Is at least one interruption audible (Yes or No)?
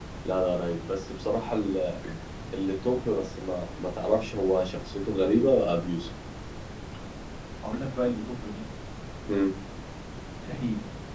No